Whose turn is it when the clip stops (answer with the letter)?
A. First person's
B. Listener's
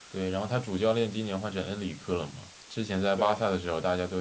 A